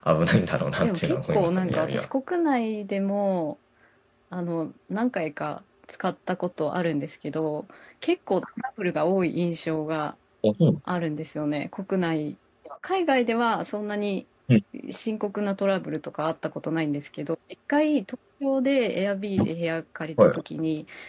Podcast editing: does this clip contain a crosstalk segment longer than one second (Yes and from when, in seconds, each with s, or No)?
Yes, from 0.8 s